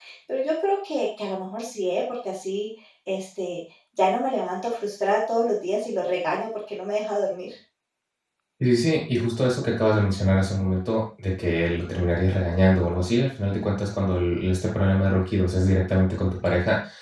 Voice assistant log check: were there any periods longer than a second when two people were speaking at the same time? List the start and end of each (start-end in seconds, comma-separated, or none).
none